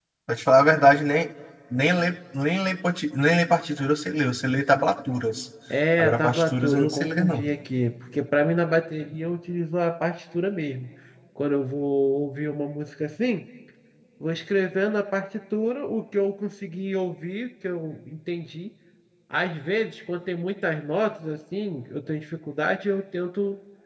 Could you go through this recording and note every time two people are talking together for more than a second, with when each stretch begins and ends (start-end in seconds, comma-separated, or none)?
6.0-7.4